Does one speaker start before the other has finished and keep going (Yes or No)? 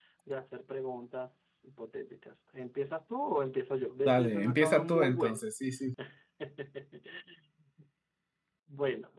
Yes